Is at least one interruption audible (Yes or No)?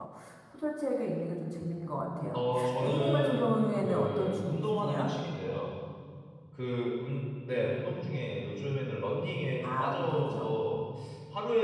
Yes